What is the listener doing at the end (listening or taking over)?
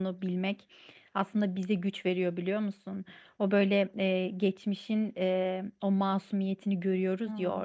listening